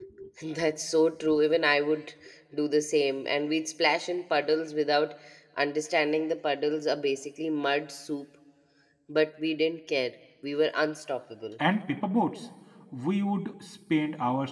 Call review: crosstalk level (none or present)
none